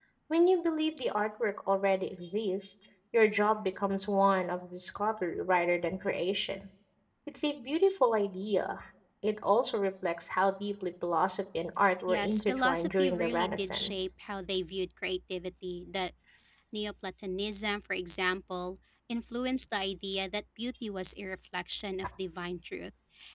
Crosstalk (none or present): present